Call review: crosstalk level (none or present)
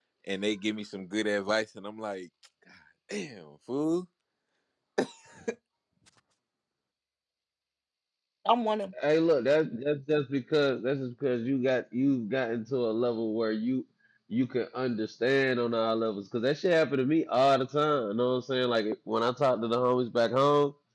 none